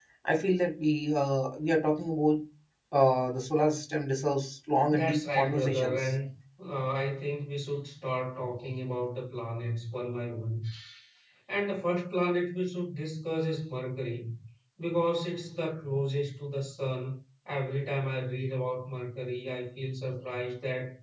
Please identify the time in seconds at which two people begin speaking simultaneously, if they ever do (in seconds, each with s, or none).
4.9 s